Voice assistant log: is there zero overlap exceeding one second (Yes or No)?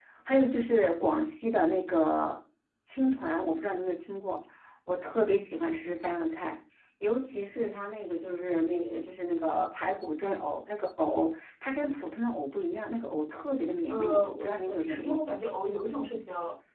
No